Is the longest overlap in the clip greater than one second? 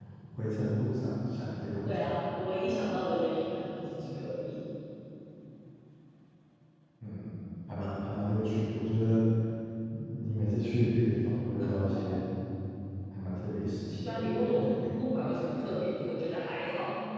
No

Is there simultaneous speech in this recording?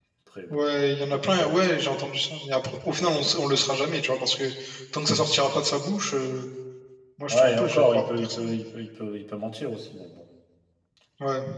Yes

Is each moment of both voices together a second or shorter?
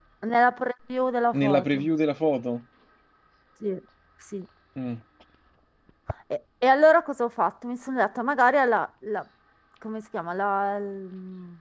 Yes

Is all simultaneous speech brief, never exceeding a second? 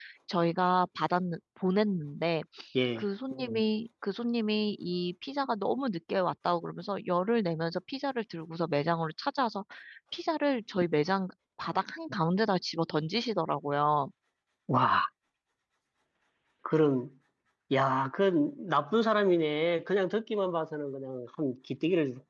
Yes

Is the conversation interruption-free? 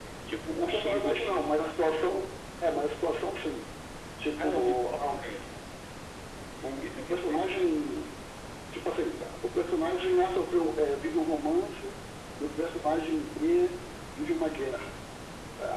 No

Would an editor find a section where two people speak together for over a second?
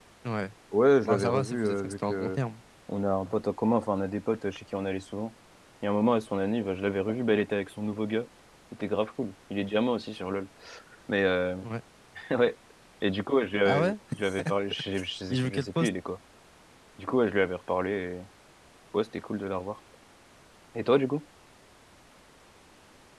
Yes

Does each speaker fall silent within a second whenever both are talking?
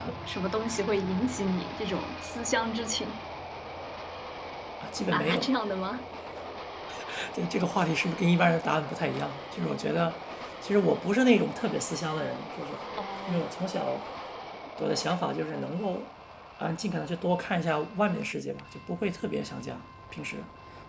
Yes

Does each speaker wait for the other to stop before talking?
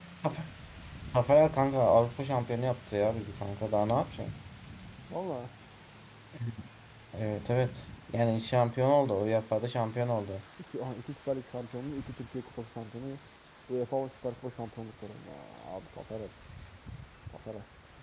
Yes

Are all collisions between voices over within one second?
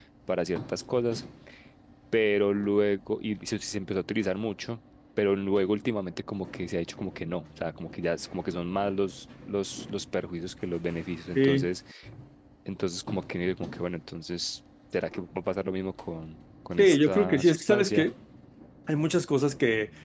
No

